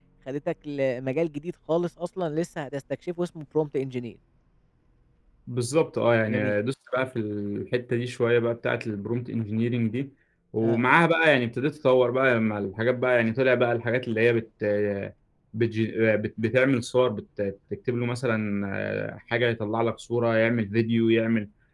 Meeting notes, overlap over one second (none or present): none